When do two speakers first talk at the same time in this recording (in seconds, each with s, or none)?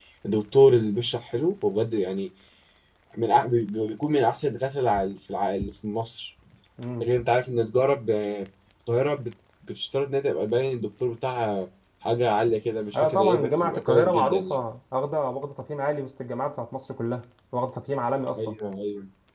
12.9 s